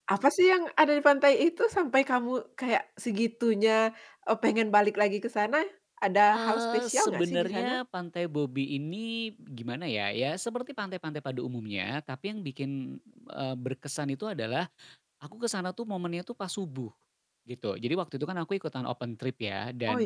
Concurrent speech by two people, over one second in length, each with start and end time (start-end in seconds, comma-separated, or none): 6.3-7.8